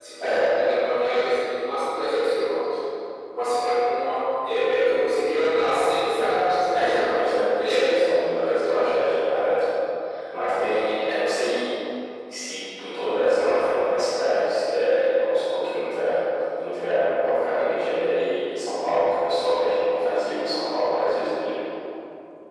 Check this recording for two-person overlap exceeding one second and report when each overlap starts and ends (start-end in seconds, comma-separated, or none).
6.7-8.0